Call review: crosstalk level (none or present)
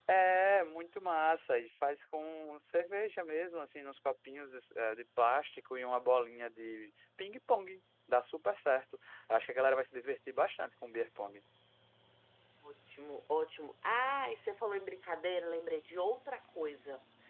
none